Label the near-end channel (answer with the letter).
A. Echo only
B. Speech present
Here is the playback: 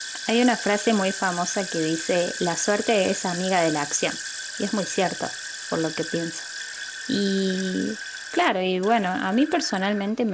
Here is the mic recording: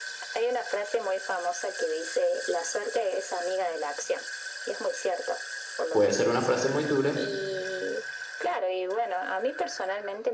B